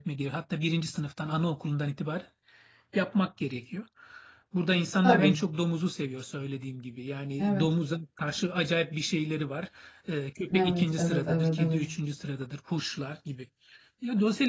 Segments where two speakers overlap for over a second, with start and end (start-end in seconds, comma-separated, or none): 10.5-11.8